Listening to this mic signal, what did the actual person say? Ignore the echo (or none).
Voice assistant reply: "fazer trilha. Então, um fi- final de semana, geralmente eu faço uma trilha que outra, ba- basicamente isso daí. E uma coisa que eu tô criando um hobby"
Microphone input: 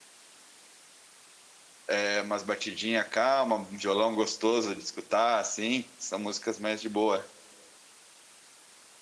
É umas batidinhas calma, um violão gostoso de escutar, assim, são músicas mais de boa.